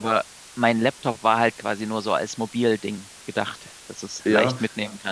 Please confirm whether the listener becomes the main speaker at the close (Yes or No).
No